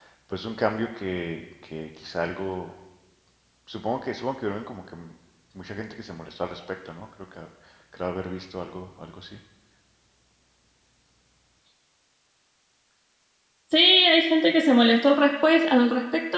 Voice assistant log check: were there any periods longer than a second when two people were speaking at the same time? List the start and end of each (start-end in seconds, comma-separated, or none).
none